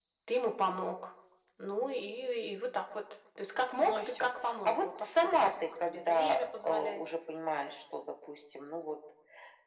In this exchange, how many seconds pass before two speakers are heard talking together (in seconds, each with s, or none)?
3.8 s